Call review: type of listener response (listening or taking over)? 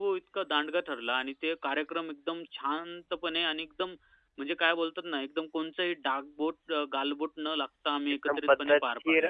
taking over